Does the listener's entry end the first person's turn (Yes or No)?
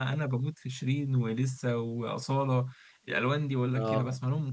Yes